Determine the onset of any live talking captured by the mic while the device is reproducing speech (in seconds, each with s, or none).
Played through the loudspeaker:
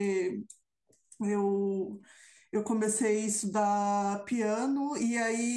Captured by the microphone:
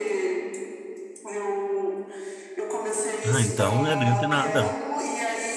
3.2 s